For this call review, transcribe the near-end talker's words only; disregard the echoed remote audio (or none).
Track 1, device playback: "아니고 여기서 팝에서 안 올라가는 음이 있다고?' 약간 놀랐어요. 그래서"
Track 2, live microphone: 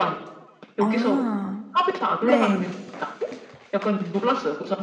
아. 네.